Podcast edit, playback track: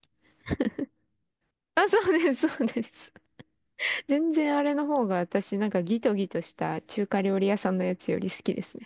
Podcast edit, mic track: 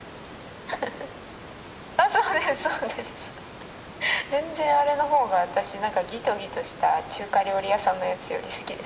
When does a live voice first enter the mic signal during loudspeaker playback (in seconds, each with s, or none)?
none